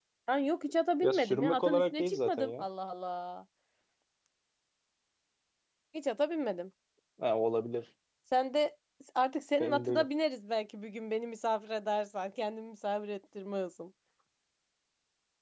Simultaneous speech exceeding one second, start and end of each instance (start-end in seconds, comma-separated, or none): 1.0-2.6